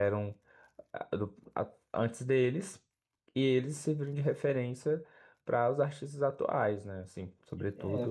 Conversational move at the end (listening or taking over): taking over